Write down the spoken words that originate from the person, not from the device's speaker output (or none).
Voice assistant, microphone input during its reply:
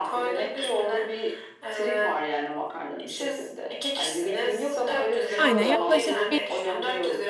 Aynen yaklaşık bir